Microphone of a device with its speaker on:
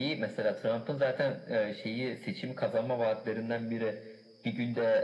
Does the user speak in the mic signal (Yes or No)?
No